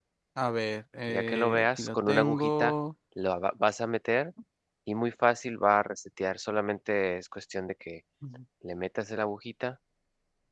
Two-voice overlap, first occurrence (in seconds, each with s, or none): 1.1 s